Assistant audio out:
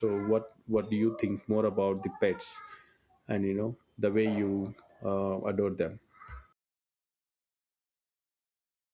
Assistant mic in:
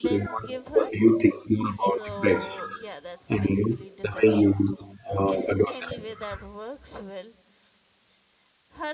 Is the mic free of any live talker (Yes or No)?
No